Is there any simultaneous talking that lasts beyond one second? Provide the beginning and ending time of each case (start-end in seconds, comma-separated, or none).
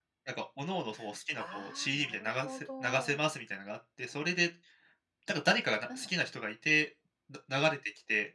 1.3-3.2